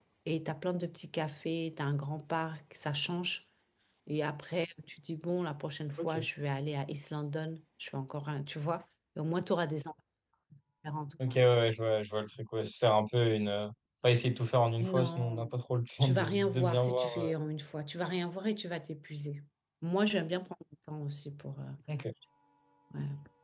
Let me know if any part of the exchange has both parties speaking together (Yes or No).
Yes